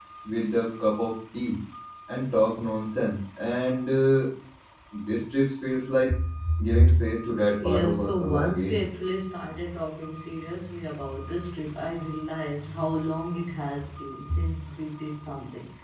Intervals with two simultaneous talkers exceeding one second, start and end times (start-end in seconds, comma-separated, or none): 7.6-8.9